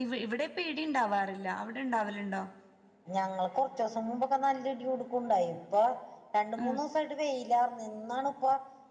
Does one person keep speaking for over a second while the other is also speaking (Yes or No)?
No